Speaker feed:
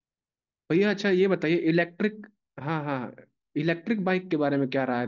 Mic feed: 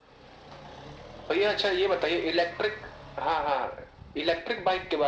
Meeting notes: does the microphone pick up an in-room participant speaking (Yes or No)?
No